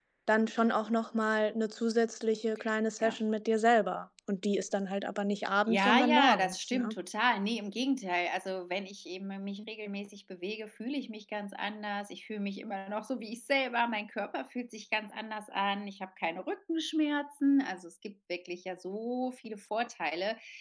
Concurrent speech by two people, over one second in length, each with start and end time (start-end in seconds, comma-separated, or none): 5.7-7.0